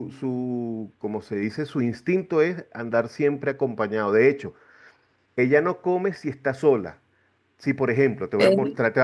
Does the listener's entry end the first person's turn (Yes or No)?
No